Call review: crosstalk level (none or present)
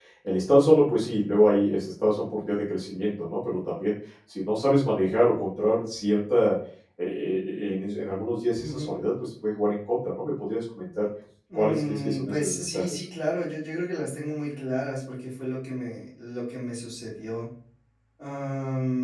present